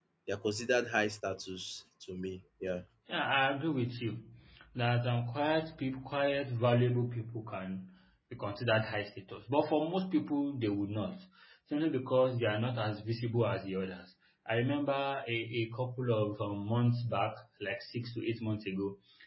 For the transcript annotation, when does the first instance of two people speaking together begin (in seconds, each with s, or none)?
none